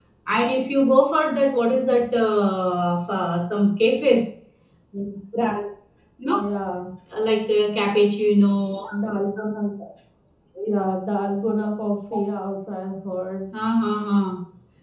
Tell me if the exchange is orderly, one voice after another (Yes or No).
Yes